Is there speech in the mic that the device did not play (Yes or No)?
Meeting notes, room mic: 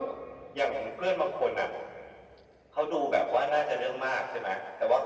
No